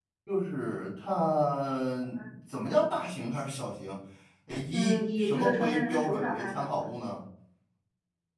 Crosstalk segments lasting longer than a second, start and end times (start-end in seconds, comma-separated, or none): 4.7-6.9